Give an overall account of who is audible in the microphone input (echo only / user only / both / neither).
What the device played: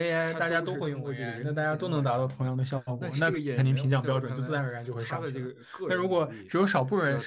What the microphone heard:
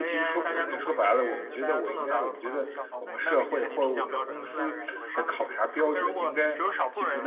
both